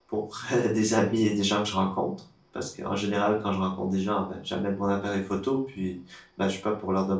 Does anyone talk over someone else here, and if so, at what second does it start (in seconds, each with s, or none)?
none